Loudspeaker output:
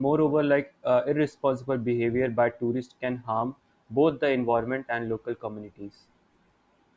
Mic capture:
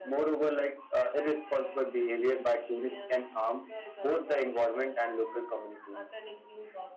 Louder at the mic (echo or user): echo